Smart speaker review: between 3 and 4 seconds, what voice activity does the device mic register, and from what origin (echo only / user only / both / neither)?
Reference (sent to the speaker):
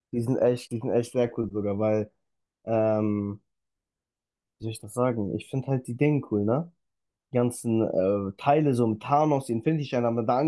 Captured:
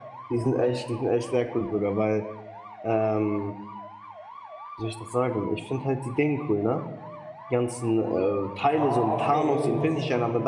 echo only